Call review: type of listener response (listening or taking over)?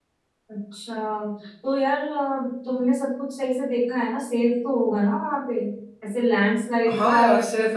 taking over